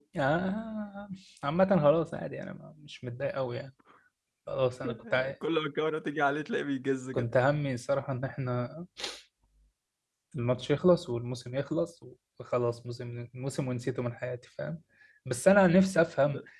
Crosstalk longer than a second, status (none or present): none